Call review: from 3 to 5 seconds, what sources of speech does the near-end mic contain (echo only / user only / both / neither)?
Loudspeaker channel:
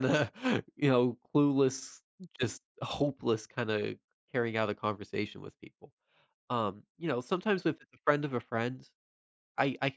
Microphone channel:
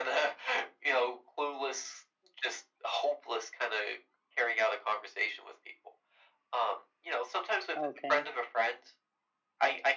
echo only